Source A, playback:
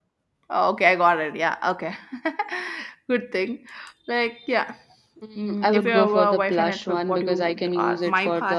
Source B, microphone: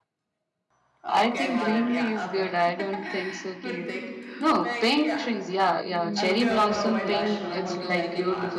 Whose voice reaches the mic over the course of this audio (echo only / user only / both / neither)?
both